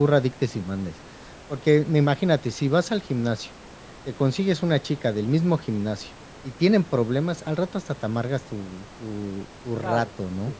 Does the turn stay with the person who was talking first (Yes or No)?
No